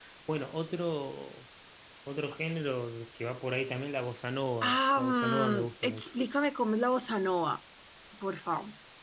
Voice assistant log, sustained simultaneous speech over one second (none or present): present